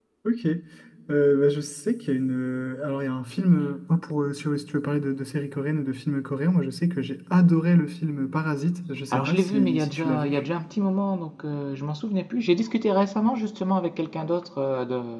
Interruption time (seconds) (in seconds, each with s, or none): 9.1 s